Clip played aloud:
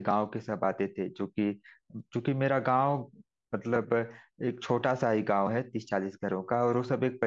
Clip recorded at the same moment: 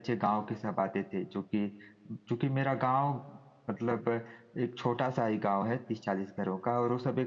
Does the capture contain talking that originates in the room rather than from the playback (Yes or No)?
No